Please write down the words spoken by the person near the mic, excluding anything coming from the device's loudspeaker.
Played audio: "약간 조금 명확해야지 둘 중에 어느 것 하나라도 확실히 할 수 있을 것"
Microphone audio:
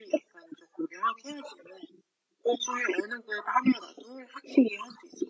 none

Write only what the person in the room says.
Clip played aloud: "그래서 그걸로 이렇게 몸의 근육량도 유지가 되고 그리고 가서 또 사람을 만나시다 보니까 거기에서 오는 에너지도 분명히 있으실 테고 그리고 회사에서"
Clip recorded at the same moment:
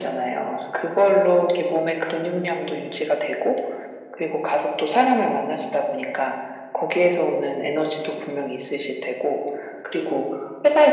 none

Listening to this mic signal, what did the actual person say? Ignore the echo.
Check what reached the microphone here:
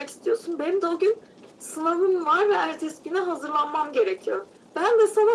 none

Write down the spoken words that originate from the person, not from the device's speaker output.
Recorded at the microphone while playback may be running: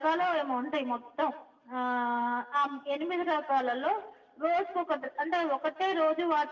none

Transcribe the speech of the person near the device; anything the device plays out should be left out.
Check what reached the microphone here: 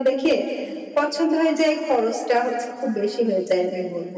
none

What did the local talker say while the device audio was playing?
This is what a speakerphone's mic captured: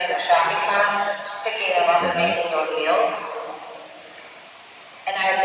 Mhm.

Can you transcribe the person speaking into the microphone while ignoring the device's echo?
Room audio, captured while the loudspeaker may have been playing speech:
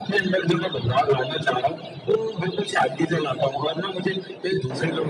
बिल्कुल।

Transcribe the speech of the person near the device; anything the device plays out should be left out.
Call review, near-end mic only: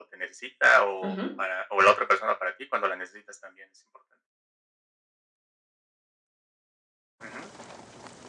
Ujú.

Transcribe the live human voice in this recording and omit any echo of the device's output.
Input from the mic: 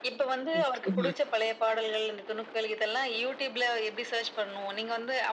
நிச்சயமா.

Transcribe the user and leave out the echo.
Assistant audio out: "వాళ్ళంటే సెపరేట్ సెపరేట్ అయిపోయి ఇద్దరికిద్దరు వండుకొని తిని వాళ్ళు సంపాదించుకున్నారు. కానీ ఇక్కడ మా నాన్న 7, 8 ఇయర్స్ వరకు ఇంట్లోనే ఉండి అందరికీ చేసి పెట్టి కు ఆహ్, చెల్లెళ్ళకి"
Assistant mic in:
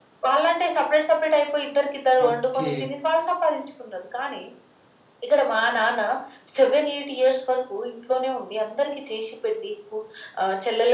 ఓకే.

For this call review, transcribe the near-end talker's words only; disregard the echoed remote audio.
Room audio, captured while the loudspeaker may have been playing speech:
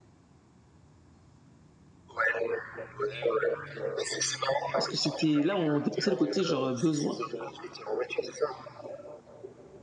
Parce que c'était là, on dépassait le côté genre, heu, besoin,

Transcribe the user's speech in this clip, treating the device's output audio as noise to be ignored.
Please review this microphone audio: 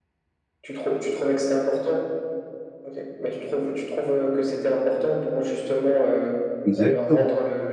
Exactement.

